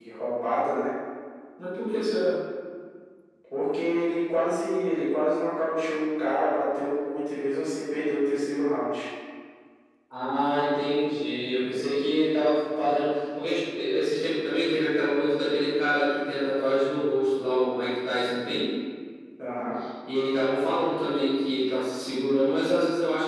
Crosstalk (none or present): none